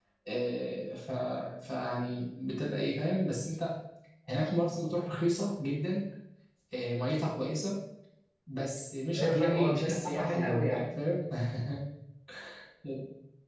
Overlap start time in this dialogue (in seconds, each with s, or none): 9.2 s